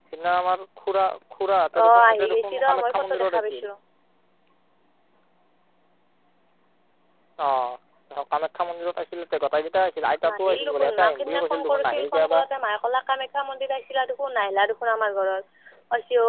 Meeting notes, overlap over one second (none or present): present